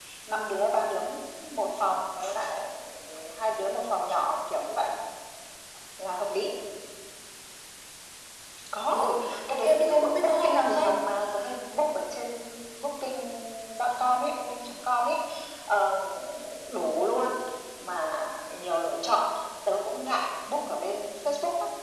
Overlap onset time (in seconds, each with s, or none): 8.9 s